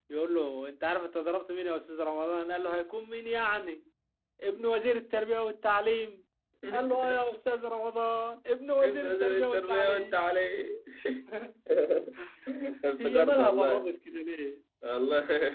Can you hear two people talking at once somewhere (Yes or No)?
Yes